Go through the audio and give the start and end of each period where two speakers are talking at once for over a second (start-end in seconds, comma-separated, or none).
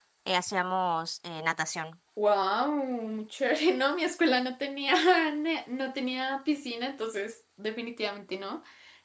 none